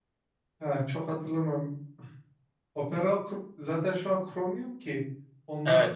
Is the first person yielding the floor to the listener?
Yes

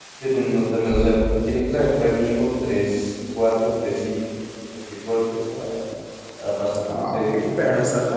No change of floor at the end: No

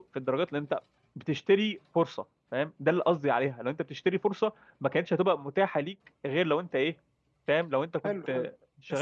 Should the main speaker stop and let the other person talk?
Yes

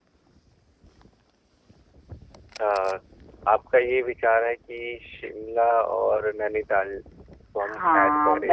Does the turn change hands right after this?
Yes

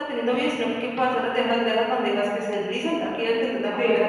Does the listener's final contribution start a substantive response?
No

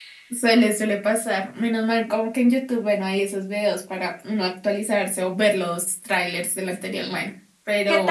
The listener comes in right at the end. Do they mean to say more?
Yes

